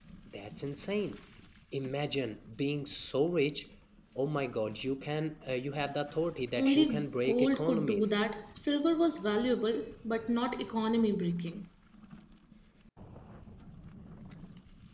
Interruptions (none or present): present